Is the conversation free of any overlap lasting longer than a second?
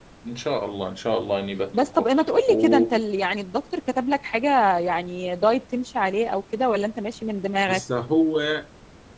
Yes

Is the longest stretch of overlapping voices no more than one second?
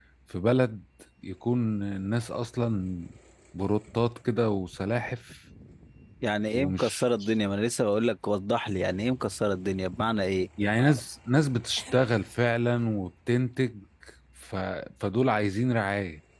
Yes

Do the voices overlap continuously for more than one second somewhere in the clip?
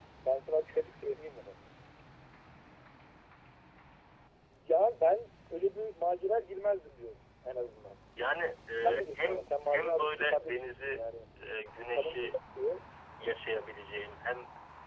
Yes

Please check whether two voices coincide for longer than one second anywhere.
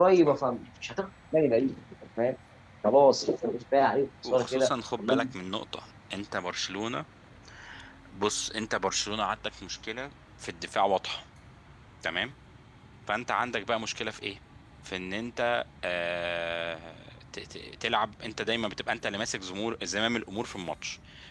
No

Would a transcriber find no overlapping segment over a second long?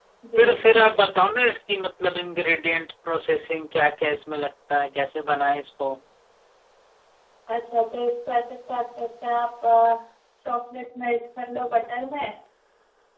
Yes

